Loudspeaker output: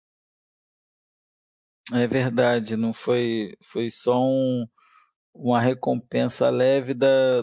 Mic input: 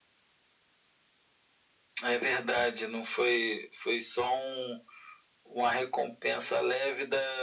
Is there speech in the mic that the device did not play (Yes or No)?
No